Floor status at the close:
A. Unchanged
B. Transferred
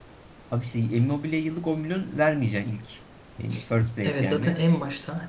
B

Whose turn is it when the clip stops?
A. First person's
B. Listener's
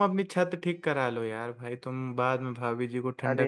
B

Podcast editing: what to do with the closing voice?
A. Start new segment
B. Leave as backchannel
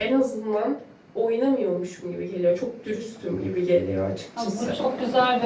A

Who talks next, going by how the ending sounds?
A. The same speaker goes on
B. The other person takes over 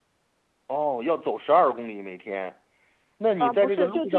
B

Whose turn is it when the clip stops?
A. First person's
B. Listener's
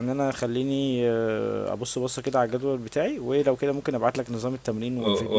B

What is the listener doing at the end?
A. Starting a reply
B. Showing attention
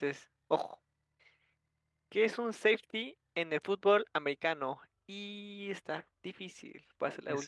A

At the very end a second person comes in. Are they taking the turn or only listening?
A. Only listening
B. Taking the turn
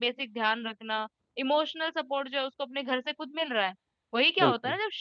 A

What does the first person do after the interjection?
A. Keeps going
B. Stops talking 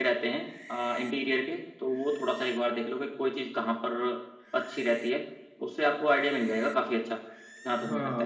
B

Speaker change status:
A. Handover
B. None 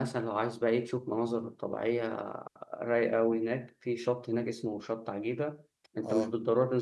B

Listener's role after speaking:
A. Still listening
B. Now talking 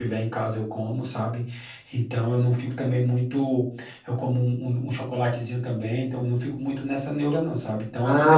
B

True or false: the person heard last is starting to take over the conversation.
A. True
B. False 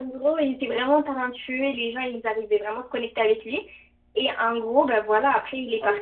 A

